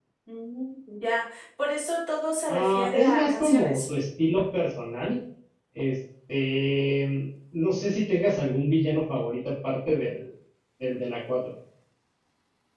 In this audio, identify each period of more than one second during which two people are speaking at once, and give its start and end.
2.5-3.8

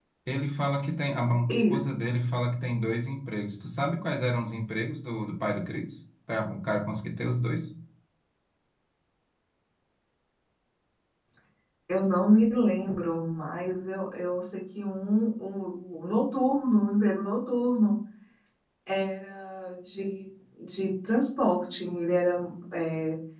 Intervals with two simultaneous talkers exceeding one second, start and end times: none

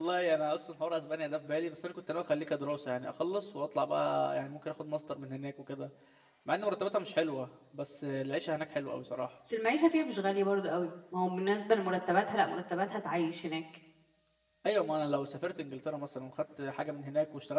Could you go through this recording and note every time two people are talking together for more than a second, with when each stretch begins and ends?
none

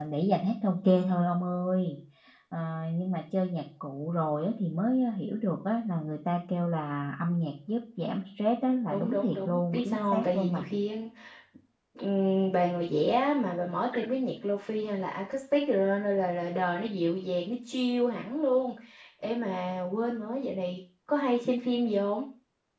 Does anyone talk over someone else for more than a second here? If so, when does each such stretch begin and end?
8.9-10.7

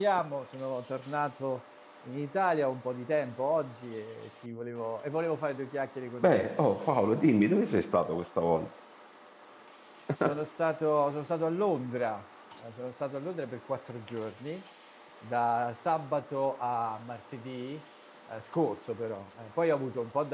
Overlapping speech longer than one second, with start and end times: none

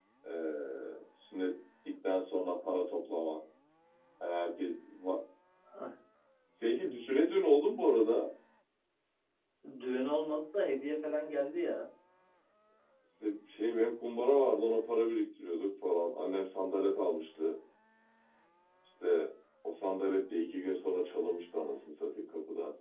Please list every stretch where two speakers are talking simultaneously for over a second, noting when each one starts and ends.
none

